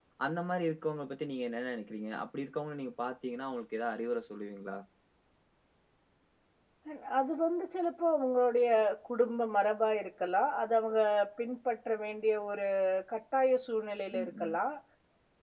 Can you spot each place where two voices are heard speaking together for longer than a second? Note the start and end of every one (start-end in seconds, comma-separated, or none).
none